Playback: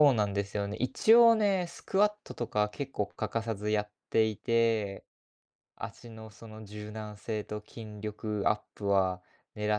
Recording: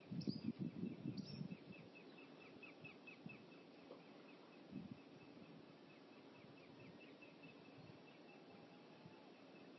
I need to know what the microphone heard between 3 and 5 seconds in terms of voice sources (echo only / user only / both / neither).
neither